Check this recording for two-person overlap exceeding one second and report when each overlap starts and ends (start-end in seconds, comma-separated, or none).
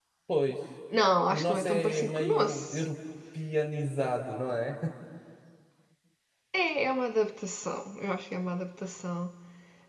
1.3-2.9